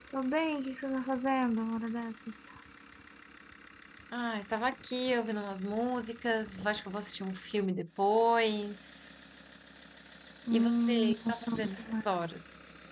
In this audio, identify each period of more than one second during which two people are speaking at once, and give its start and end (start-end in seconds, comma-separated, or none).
10.5-11.8